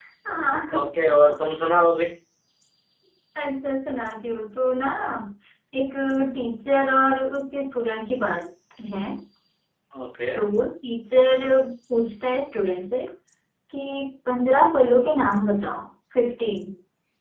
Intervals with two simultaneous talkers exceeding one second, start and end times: none

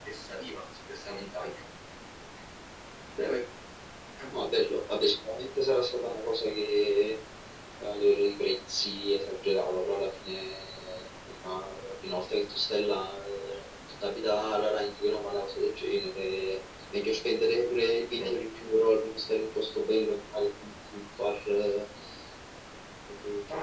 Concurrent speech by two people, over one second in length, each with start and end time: none

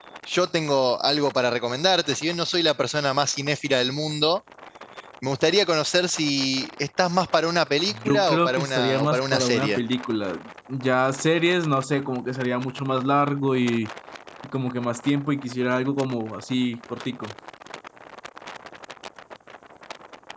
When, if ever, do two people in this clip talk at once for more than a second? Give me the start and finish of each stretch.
8.0-9.8

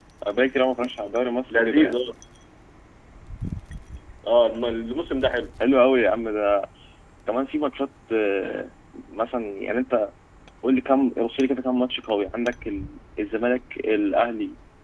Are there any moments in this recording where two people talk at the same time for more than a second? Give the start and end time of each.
none

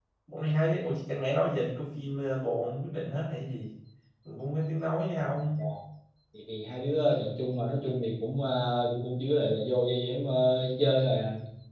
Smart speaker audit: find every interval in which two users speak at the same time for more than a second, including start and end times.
none

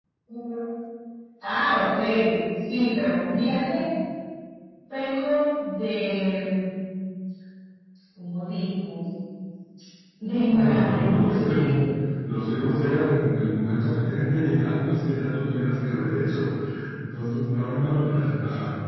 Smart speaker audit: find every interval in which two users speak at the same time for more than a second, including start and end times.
10.5-11.8

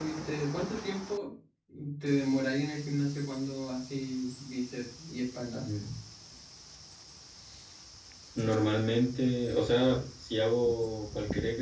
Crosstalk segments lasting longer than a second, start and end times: none

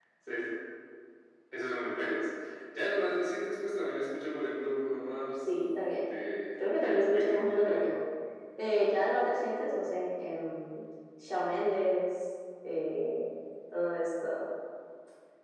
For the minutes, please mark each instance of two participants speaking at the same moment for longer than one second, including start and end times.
6.8-8.0

